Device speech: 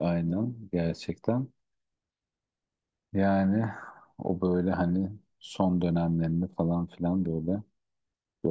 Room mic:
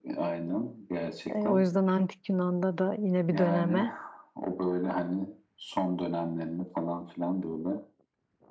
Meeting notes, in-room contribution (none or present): present